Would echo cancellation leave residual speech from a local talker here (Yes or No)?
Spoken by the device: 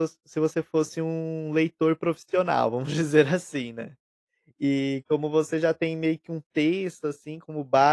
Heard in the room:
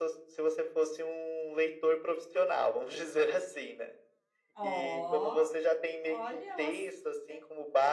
Yes